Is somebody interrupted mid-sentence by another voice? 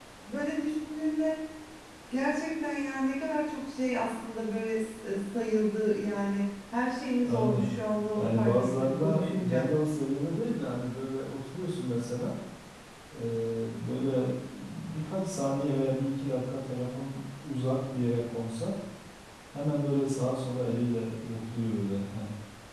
Yes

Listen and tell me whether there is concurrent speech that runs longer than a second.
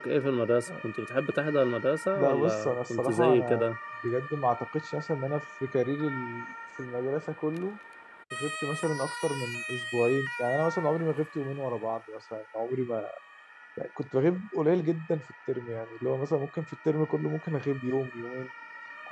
Yes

